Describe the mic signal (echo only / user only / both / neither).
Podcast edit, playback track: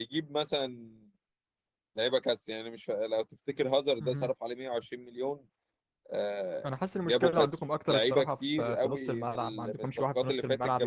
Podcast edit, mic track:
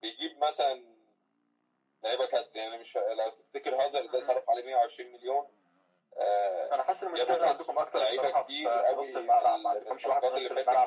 echo only